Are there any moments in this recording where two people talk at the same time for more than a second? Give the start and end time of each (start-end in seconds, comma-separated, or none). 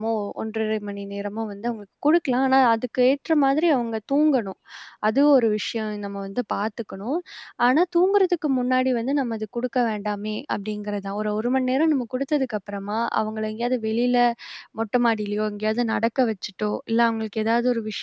none